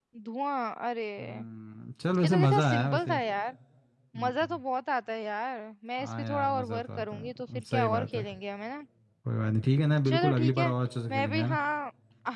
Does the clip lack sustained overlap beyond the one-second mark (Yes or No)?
No